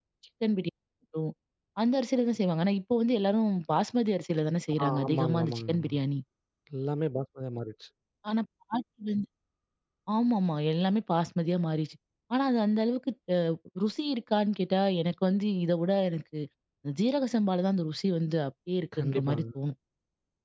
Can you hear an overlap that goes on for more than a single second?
Yes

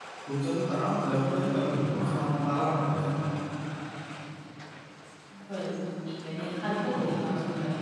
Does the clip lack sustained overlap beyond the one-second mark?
Yes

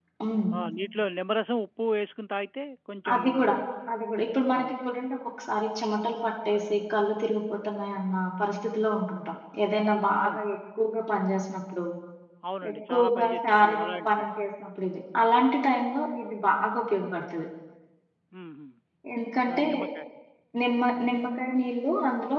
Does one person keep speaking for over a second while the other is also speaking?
Yes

